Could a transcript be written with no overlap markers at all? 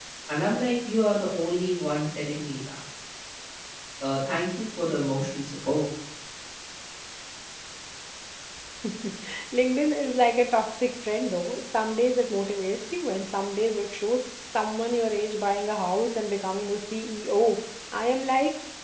Yes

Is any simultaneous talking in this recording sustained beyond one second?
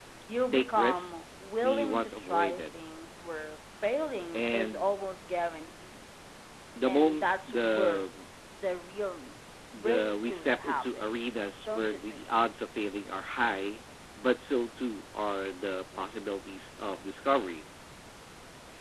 Yes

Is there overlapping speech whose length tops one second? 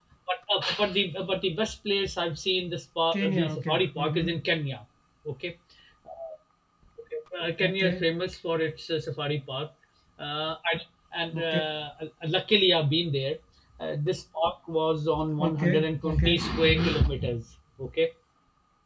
Yes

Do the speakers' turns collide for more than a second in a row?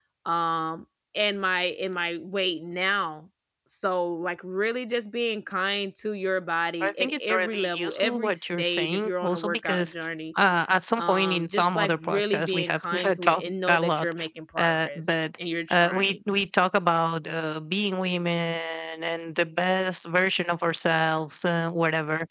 Yes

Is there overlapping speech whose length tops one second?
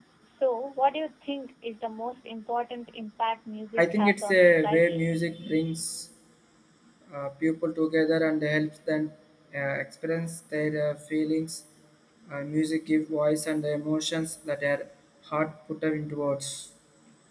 Yes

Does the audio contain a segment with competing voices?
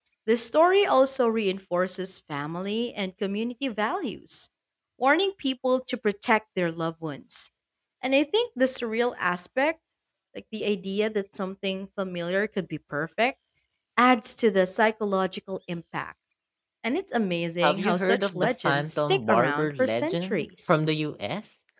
Yes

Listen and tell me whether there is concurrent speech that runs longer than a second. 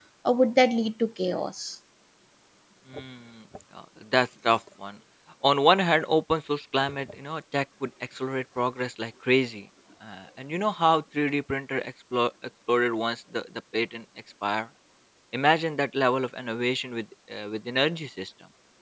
No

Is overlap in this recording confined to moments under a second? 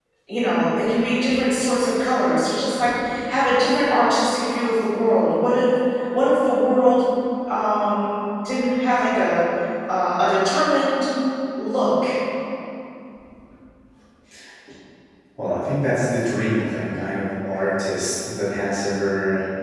Yes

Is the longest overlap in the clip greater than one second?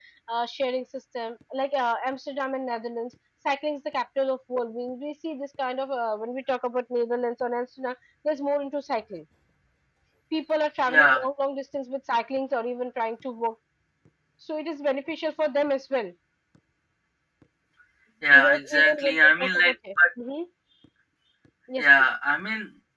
Yes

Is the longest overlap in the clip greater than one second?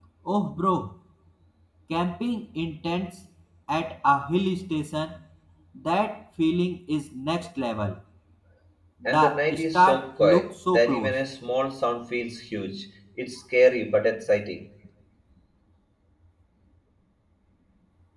Yes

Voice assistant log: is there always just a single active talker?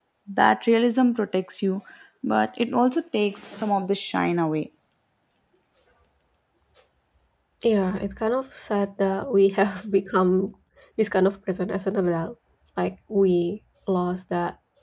Yes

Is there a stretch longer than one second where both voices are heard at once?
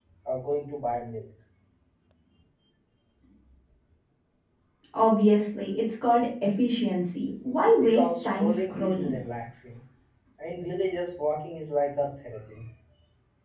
Yes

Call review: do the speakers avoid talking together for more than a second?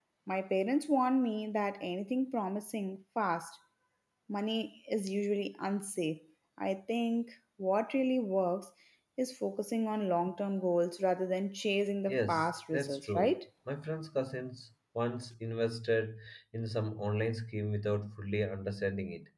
No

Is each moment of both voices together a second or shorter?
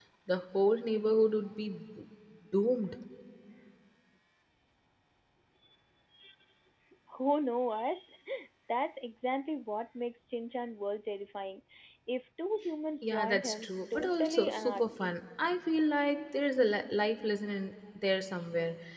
No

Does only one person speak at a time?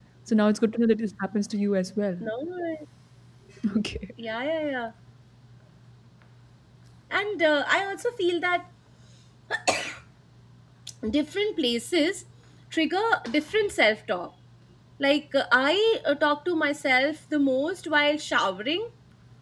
Yes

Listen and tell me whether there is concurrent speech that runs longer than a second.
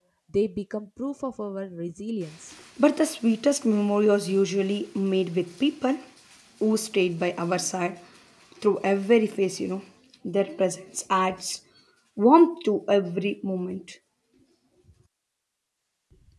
No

